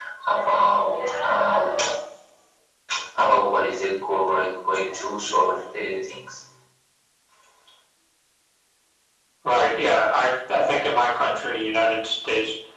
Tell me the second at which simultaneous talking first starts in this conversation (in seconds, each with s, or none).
none